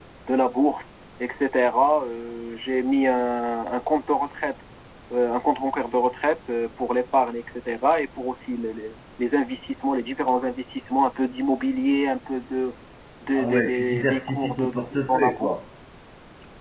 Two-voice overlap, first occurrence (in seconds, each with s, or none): 13.3 s